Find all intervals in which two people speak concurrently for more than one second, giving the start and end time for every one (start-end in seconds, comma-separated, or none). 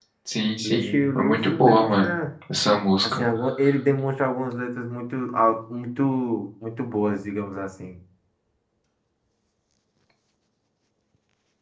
0.6-2.1